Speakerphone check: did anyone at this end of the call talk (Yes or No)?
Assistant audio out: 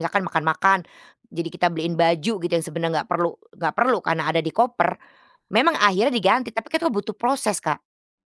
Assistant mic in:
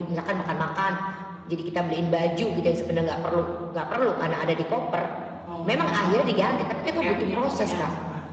Yes